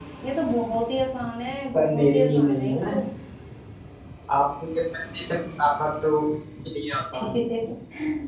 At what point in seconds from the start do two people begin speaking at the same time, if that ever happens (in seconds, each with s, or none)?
1.7 s